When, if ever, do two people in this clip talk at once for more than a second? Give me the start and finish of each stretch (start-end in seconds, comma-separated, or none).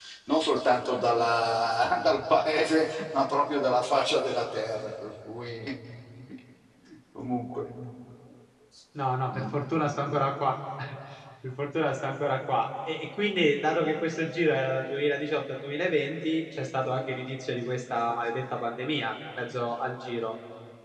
none